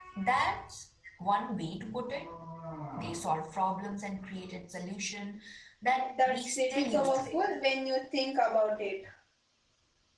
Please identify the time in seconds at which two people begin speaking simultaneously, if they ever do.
6.2 s

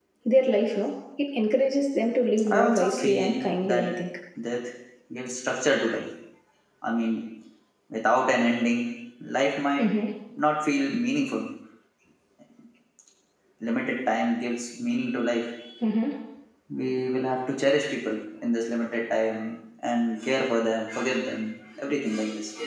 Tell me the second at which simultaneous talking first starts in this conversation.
2.4 s

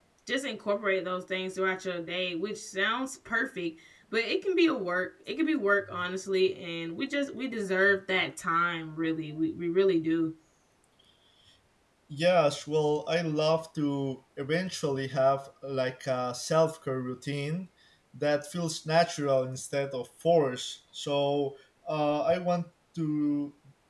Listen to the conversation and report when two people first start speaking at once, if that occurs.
none

